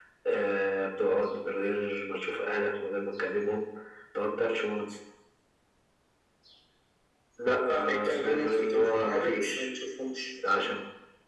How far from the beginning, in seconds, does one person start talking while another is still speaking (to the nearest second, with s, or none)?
8 s